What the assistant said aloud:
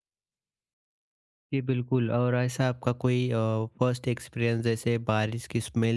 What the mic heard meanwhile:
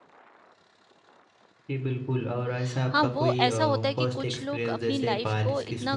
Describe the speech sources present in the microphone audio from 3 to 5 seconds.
both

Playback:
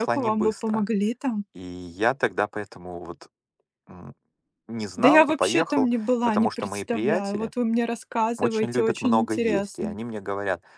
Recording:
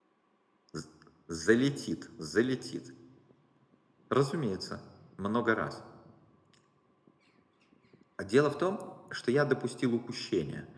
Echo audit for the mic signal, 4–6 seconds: user only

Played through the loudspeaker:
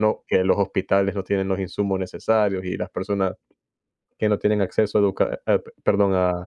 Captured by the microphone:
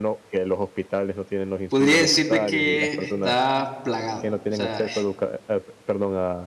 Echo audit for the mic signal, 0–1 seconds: echo only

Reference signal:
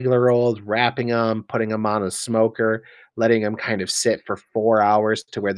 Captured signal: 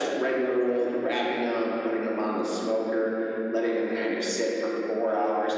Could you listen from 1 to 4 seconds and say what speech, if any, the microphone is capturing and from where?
echo only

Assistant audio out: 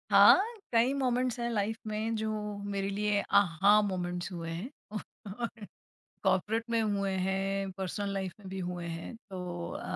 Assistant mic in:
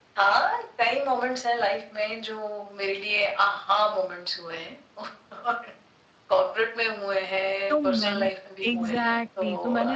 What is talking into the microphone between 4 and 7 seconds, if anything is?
echo only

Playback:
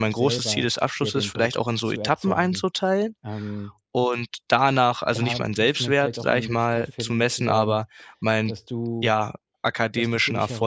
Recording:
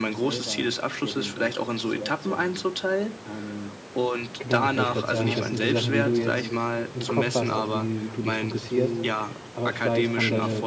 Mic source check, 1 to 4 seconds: echo only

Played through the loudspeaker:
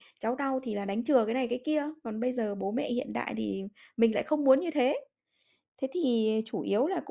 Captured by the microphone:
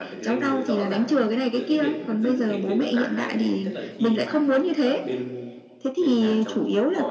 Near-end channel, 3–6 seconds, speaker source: both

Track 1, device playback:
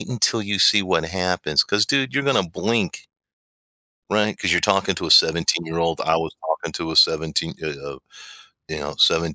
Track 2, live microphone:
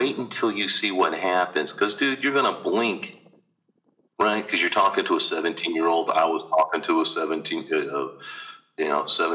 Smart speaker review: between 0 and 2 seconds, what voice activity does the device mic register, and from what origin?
echo only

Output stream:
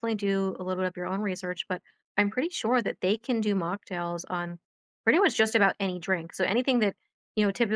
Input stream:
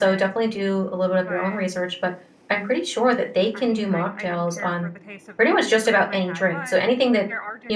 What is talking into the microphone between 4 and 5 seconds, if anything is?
both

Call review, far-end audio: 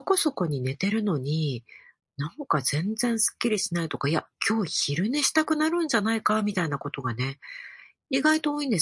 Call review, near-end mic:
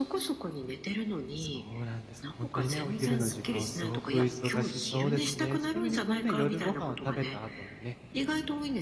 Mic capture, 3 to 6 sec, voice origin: both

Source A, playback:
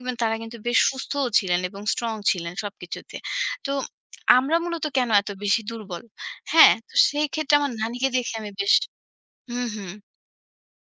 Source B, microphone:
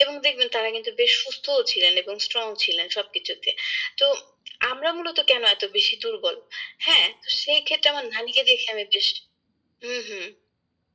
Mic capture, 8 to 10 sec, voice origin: echo only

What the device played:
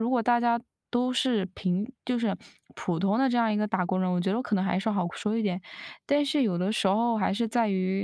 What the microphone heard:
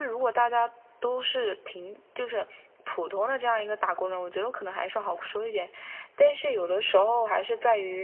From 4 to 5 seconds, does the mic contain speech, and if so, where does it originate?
echo only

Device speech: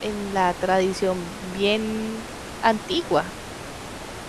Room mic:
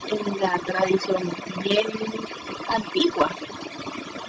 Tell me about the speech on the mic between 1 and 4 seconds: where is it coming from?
echo only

